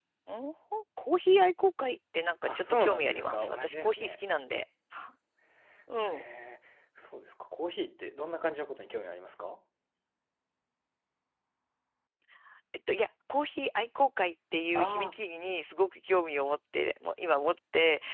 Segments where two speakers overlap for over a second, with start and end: 2.5-4.2

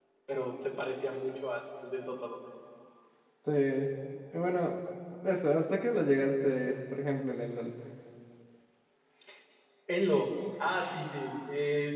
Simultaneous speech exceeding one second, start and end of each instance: none

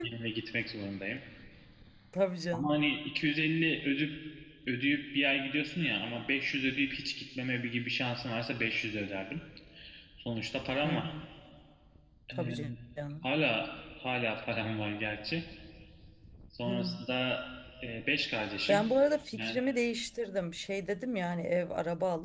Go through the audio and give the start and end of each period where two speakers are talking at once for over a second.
none

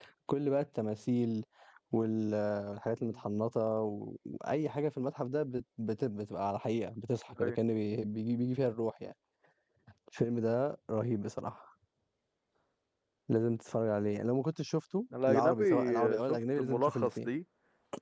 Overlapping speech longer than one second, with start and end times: 15.3-17.3

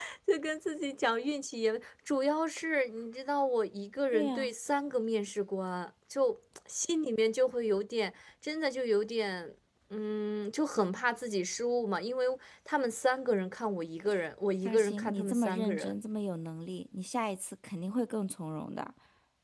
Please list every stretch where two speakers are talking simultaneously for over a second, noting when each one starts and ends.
14.7-15.9

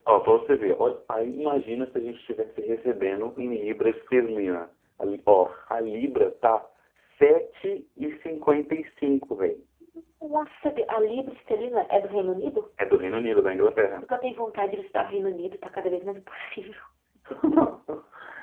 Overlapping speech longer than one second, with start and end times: none

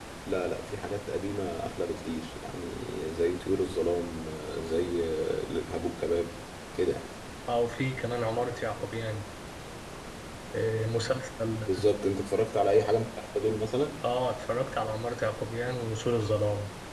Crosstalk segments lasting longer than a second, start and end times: none

